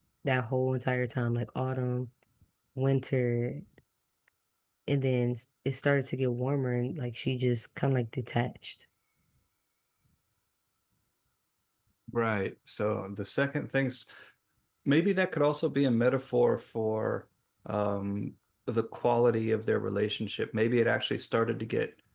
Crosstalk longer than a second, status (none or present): none